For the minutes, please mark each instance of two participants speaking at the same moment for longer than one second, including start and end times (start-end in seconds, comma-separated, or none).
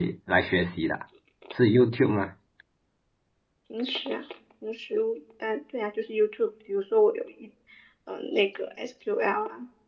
none